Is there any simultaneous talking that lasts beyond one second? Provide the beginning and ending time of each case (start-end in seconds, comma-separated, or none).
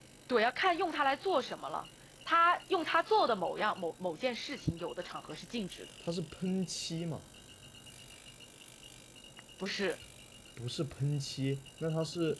none